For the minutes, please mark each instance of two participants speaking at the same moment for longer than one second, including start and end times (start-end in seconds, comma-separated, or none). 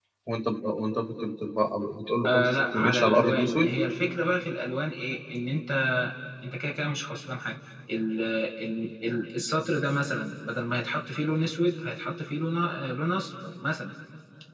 2.2-3.7